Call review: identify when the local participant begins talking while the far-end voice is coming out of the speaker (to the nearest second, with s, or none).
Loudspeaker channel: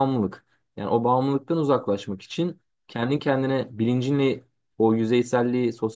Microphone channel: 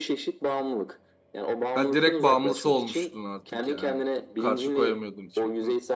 2 s